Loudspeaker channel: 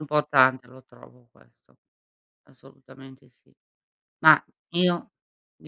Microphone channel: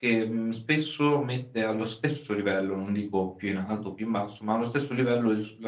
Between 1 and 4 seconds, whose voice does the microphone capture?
user only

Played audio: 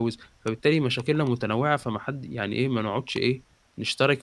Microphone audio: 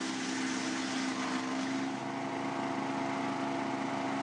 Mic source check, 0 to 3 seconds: neither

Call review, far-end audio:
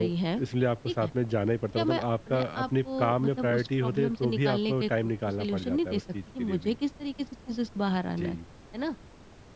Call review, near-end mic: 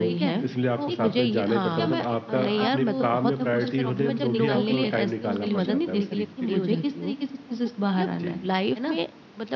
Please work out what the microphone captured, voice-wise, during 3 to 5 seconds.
both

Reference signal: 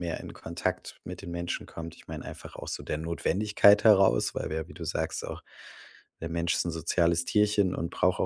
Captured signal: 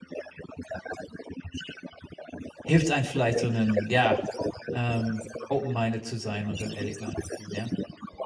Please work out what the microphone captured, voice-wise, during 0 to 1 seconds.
echo only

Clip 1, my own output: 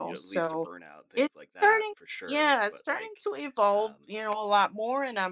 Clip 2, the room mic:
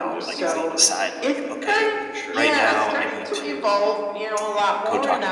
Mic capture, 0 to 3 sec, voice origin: both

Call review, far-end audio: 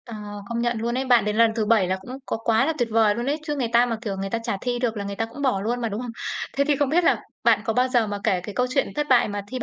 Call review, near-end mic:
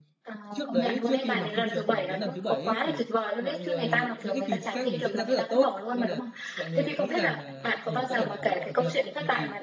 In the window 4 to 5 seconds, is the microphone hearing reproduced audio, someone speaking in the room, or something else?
both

